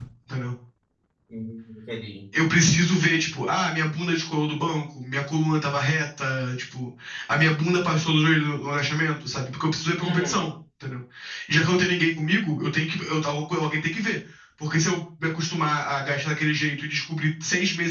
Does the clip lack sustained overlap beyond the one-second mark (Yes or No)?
Yes